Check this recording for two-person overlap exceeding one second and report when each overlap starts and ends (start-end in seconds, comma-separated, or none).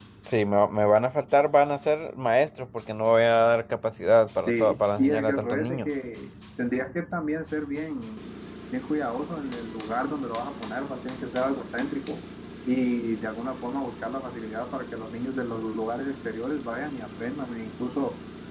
4.5-5.9